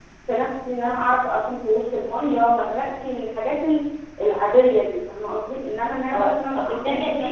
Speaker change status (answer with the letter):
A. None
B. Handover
B